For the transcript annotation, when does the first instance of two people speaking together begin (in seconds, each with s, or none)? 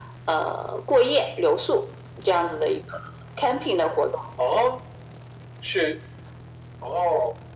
none